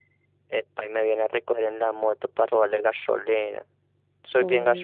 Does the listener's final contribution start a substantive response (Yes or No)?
Yes